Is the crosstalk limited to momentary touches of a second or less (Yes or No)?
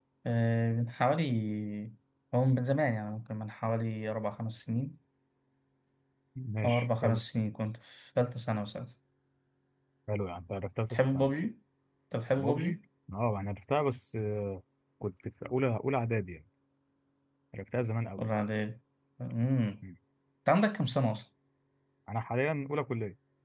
Yes